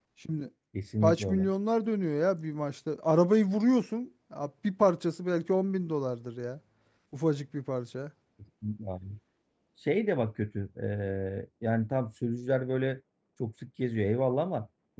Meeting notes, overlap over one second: none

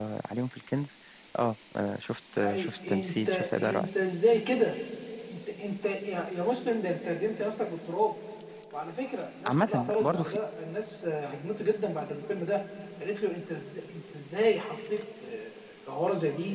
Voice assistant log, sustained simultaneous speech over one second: present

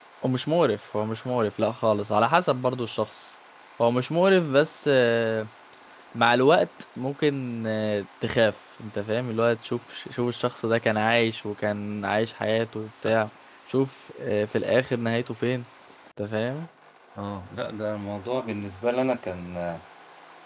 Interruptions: none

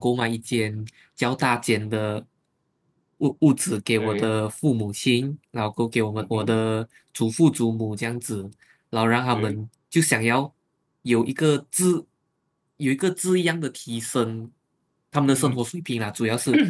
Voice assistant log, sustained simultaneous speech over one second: none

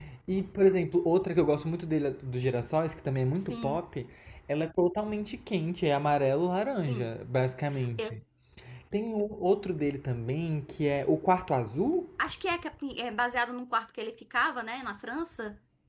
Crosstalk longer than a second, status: none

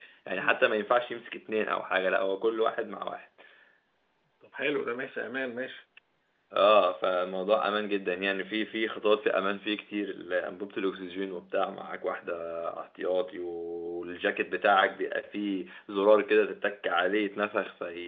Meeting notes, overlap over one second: none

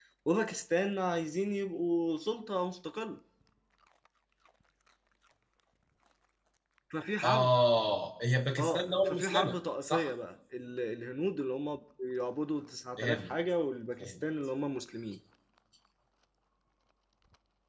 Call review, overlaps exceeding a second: present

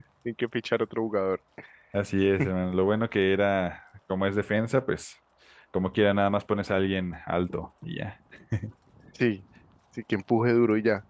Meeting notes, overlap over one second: none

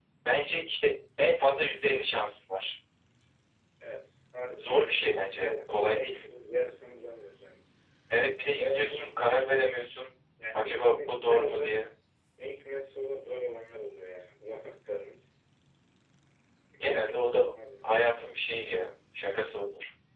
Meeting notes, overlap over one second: present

